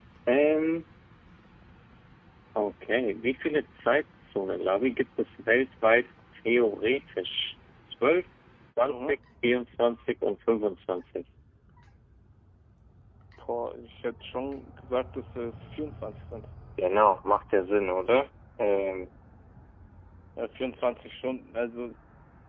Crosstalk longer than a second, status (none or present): none